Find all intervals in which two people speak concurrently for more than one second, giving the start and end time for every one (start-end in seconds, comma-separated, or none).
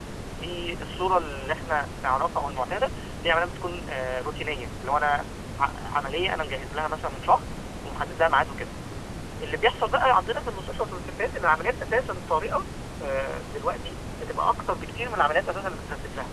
none